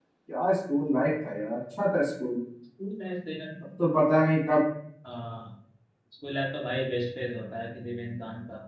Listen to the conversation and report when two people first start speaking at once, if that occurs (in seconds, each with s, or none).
none